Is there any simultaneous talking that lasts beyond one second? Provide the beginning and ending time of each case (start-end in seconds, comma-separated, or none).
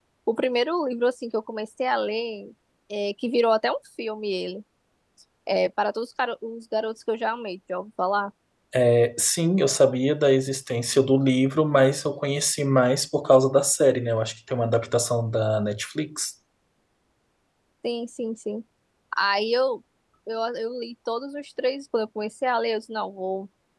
none